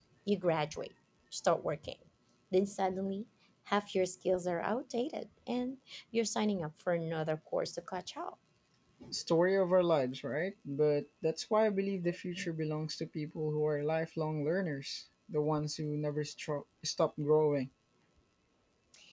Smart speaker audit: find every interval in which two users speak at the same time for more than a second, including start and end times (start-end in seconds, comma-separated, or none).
none